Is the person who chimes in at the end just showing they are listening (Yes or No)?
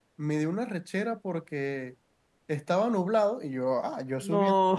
Yes